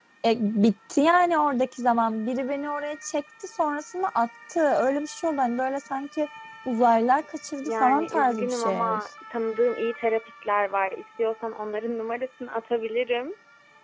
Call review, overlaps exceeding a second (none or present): present